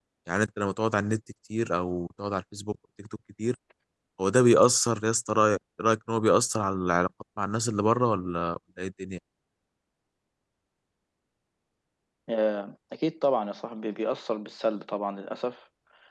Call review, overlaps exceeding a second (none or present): none